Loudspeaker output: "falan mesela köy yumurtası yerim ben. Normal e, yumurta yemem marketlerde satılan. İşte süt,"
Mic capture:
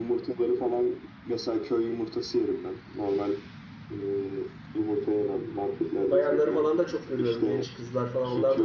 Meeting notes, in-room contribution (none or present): present